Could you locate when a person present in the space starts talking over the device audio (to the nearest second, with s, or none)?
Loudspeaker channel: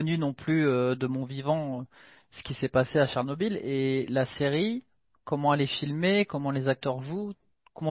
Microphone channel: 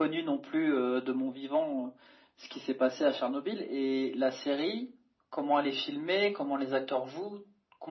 none